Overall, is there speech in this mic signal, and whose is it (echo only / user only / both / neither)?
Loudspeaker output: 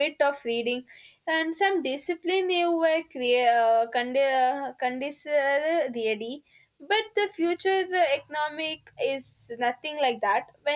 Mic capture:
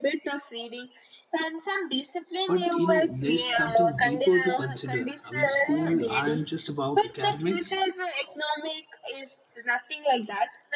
both